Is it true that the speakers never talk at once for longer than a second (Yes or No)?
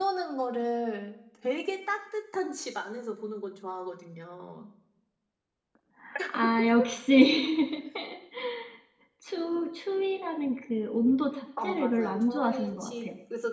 No